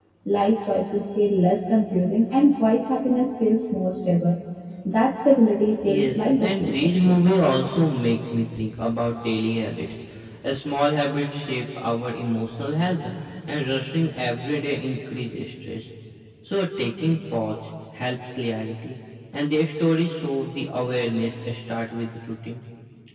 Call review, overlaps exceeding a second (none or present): present